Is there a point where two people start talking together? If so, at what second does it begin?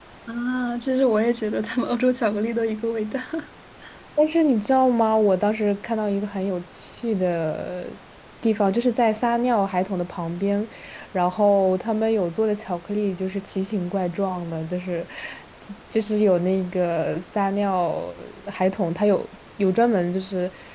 none

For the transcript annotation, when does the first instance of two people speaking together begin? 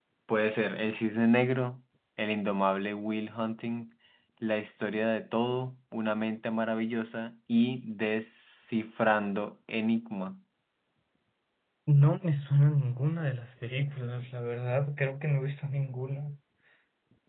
none

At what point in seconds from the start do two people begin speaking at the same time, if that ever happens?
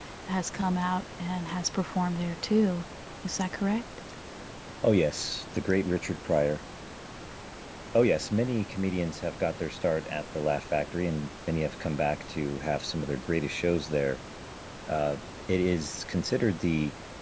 none

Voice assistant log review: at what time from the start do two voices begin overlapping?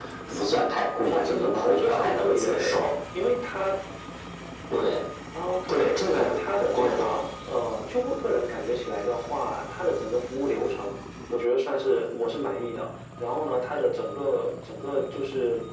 1.1 s

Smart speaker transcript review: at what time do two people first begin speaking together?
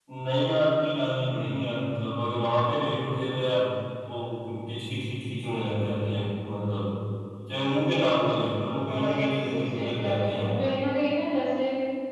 8.7 s

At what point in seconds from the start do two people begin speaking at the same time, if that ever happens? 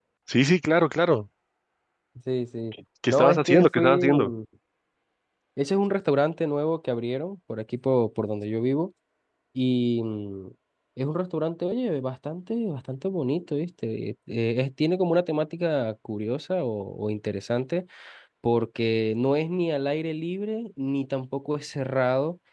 3.1 s

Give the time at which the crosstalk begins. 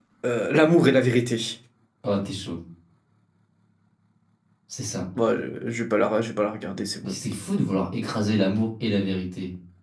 none

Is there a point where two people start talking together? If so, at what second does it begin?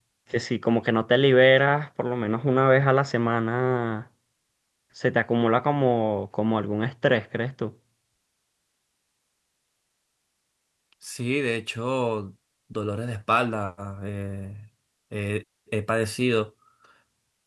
none

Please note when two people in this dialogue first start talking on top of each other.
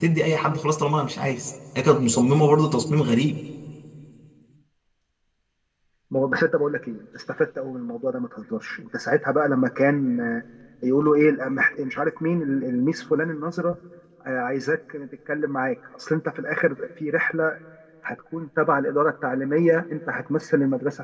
none

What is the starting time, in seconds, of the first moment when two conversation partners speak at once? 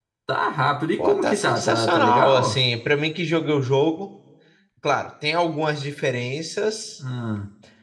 1.0 s

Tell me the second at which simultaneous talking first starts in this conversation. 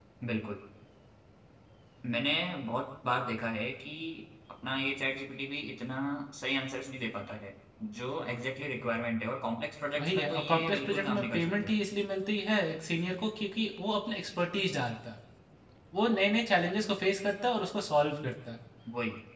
9.9 s

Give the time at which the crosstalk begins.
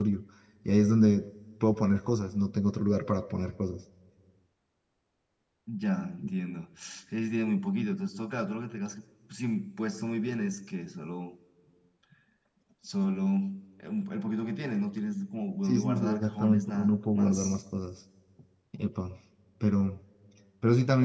15.6 s

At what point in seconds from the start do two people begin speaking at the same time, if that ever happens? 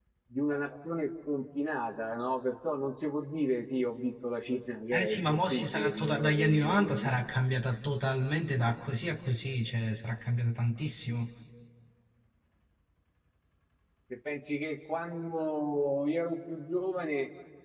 4.9 s

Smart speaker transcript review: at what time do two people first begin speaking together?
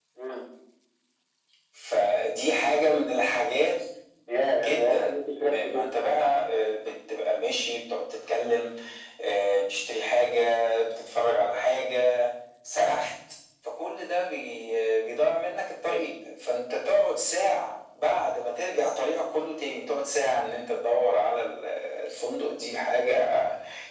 4.6 s

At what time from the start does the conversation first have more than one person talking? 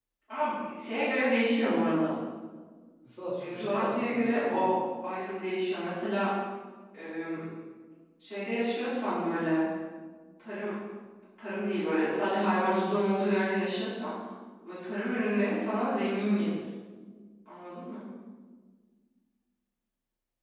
3.5 s

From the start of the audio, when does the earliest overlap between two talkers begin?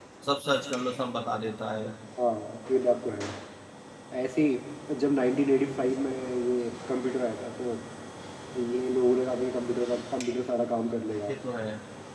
none

